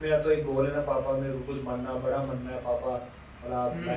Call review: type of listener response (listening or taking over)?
listening